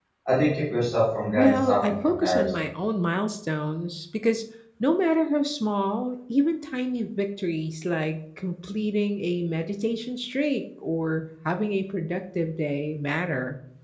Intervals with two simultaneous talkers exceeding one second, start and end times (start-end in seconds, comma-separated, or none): 1.3-2.6